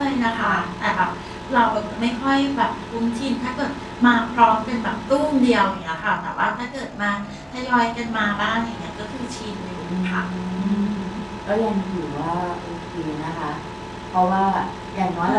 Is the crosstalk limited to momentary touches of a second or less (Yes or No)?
Yes